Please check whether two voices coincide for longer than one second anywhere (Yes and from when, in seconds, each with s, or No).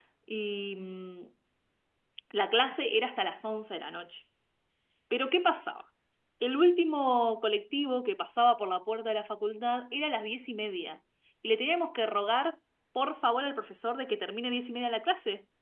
No